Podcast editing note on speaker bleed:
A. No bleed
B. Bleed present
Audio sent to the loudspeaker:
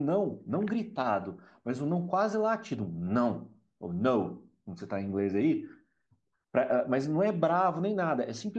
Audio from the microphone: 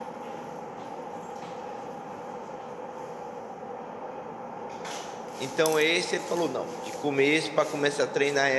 A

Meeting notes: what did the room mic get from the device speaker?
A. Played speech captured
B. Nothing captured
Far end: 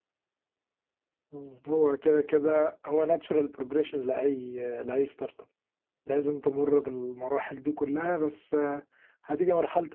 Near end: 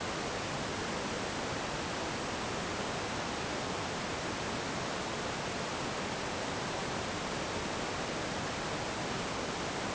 B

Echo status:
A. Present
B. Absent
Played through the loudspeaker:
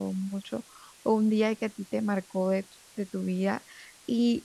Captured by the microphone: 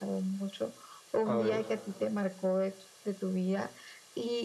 A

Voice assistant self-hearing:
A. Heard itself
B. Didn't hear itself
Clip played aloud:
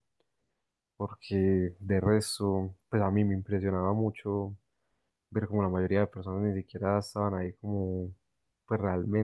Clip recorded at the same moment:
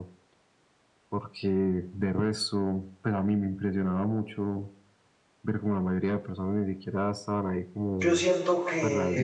A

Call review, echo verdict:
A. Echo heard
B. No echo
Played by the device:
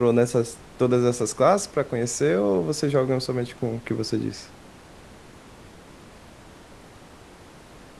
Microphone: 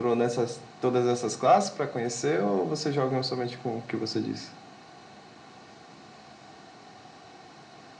A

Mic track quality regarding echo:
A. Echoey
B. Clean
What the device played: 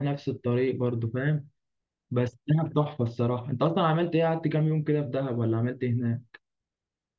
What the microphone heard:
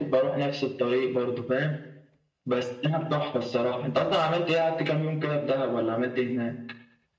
A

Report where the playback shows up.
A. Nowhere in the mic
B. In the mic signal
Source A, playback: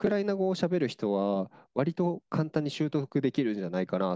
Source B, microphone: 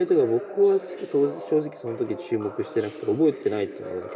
B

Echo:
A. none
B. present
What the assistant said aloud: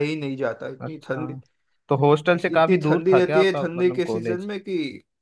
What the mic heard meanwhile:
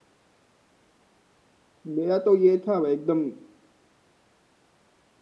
A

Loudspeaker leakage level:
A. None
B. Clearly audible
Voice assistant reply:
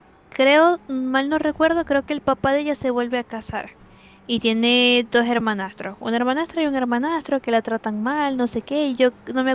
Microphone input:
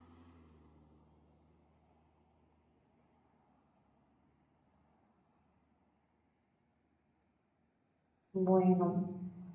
A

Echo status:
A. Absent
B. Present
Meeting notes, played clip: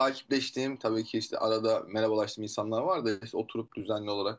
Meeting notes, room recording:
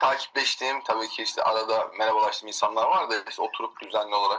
B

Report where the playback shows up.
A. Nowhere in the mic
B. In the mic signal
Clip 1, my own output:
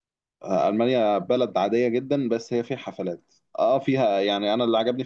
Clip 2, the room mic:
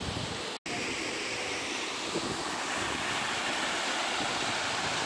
A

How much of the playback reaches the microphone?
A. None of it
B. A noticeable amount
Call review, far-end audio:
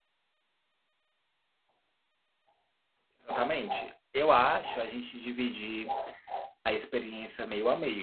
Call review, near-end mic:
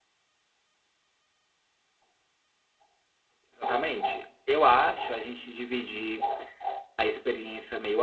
B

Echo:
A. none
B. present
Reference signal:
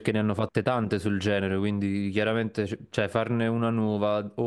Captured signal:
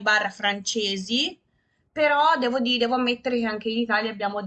A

